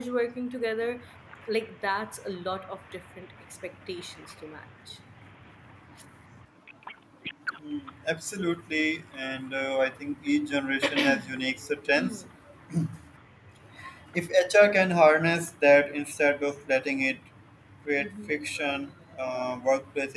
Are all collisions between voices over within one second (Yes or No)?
Yes